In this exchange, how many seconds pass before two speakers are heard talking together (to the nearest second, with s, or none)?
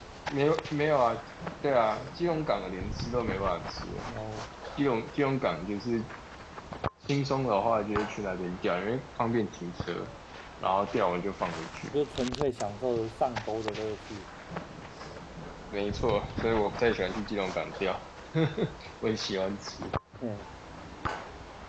none